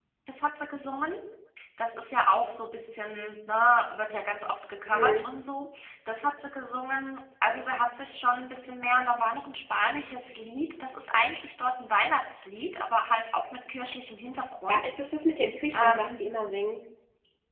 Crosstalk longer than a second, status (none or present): none